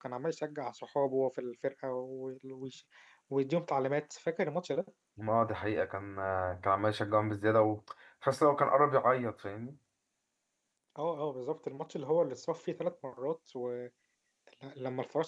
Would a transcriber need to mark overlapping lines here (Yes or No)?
No